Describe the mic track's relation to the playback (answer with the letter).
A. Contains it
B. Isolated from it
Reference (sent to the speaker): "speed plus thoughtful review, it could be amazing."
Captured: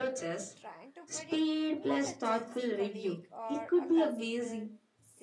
A